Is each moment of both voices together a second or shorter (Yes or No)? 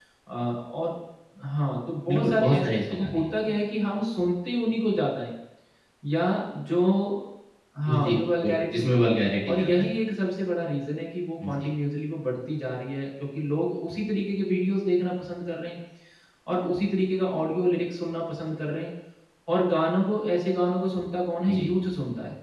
No